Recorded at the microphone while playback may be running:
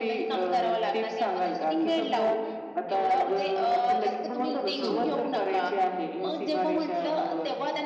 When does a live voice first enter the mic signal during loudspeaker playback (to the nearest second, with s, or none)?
5 s